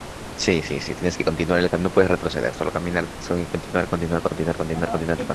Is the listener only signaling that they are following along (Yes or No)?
No